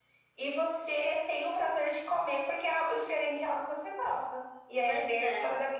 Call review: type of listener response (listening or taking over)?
listening